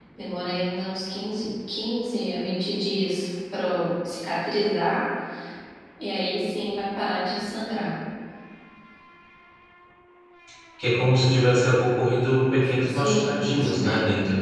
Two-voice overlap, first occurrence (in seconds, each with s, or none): 12.9 s